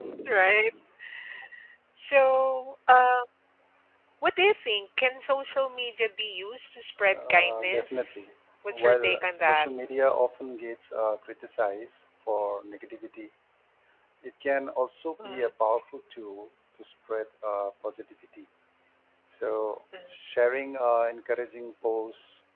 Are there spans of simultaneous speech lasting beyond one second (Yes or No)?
Yes